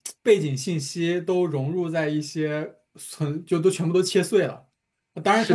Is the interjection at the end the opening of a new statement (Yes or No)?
No